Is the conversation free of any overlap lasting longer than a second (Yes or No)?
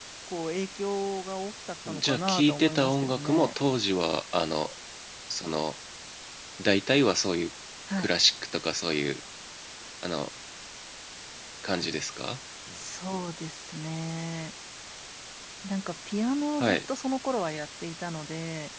No